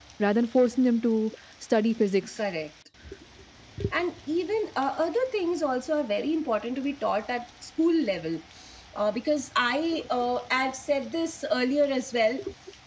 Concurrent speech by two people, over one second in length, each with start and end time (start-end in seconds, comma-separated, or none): none